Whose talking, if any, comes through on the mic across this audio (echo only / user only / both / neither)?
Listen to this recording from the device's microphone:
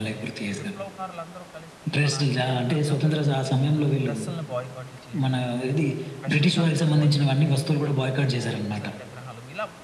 both